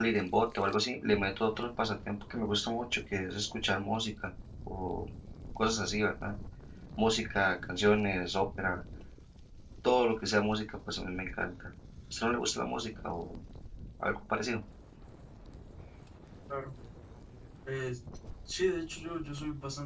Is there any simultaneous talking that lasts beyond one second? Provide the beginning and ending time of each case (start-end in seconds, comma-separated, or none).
none